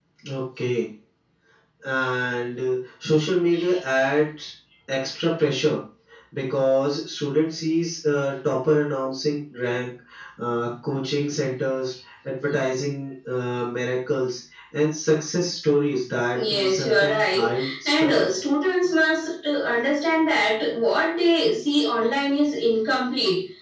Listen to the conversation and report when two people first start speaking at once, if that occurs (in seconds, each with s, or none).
16.3 s